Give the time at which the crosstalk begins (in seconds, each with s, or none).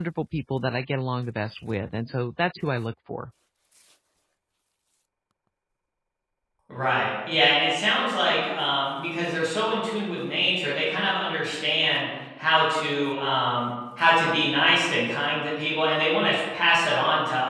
none